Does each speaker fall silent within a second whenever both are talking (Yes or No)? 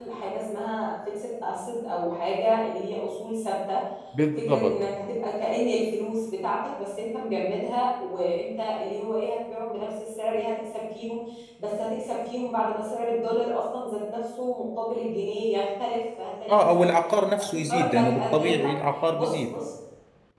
No